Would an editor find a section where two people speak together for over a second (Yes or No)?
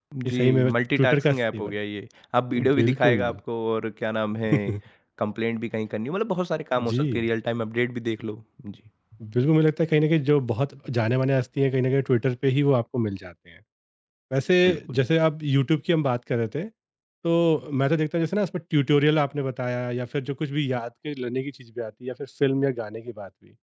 Yes